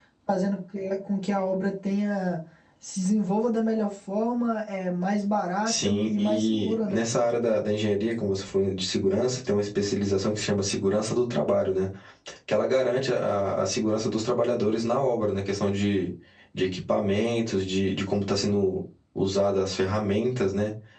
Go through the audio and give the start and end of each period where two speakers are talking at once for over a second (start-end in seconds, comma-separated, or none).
5.7-7.0